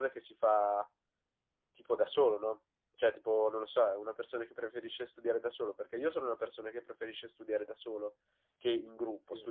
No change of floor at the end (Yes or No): Yes